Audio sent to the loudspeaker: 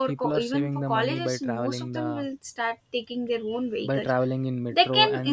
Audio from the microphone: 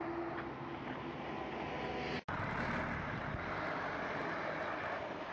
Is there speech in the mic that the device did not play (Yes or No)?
No